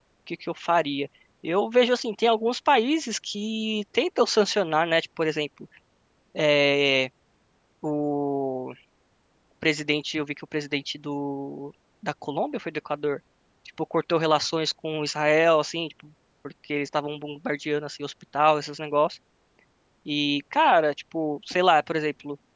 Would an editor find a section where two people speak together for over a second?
No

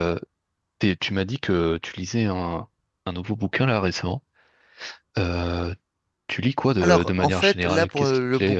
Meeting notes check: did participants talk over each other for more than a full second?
Yes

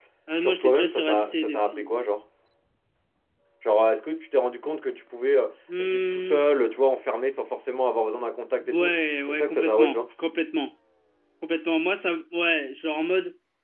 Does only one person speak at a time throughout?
No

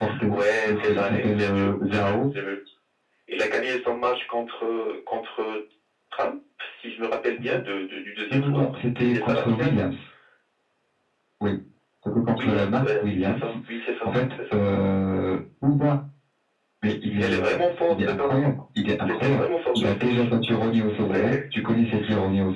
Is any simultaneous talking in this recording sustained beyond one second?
Yes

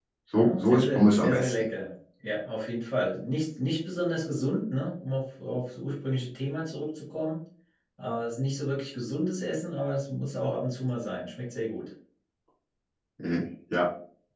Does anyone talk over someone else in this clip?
Yes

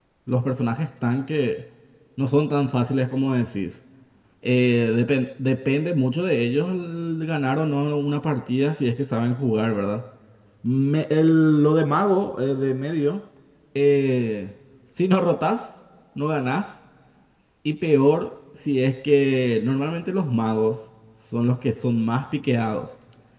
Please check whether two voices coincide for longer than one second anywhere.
No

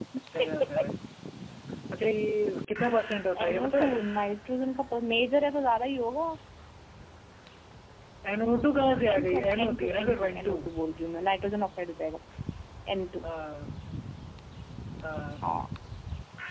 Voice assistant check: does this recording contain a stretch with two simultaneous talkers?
Yes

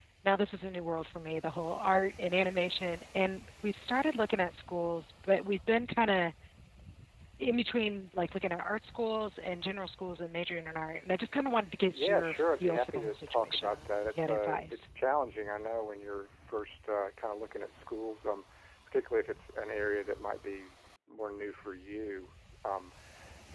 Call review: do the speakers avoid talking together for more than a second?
No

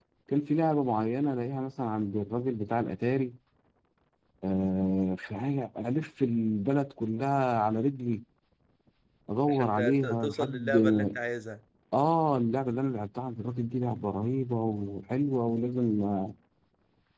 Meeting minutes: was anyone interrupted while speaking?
Yes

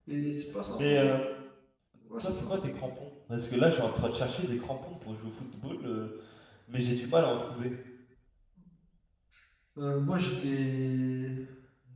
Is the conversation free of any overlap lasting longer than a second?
Yes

